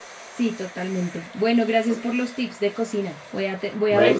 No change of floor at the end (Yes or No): Yes